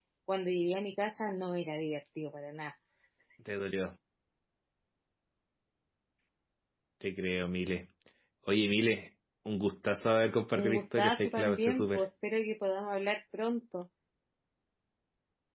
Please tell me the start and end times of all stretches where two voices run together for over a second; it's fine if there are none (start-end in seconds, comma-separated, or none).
10.5-12.0